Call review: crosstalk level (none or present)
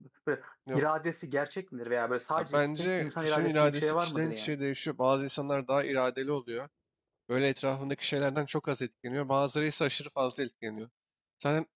present